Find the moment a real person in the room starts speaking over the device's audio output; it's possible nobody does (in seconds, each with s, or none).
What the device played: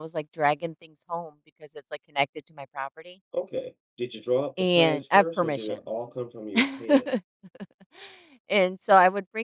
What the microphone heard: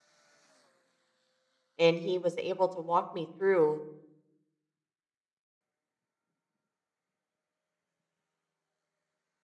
1.8 s